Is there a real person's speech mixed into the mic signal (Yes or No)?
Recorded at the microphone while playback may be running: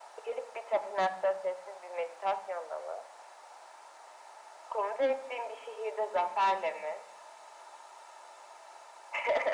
No